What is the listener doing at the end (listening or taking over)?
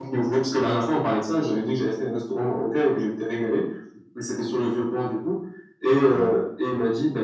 listening